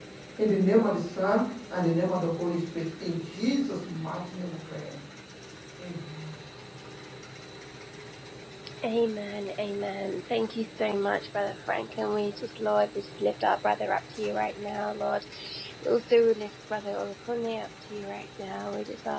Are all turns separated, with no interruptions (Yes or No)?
Yes